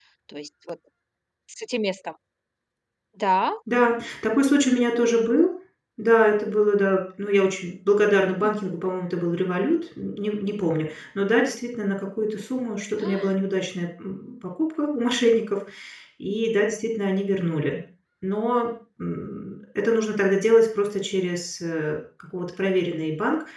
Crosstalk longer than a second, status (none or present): none